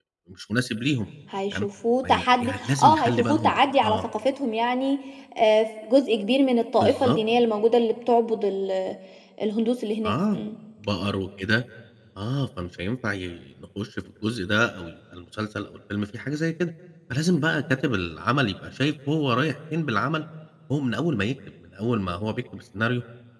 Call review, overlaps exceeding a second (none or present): present